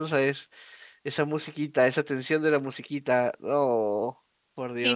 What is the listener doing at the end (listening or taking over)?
taking over